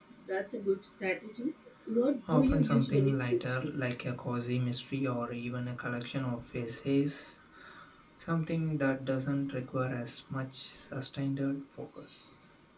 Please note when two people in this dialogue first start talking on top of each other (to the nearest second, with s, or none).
2 s